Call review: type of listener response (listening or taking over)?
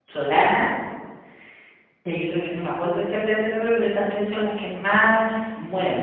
taking over